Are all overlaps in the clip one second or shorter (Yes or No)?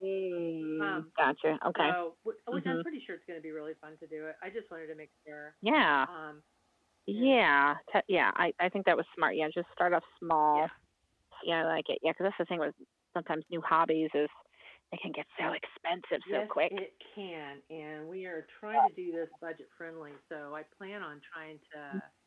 Yes